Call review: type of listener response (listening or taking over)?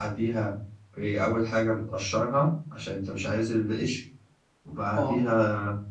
listening